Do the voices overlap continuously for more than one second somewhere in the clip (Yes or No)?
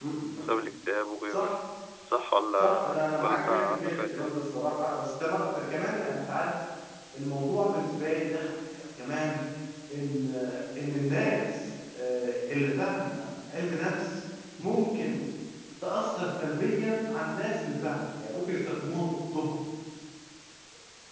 Yes